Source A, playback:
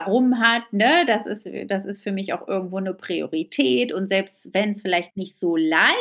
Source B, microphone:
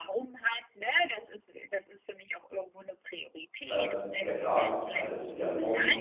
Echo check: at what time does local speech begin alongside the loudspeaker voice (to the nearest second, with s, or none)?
4 s